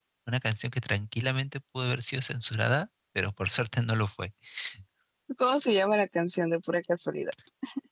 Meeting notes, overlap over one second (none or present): none